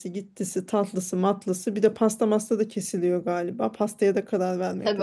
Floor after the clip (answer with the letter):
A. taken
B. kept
A